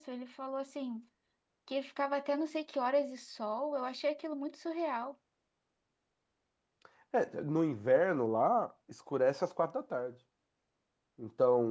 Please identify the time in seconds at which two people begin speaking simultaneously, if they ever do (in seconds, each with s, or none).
none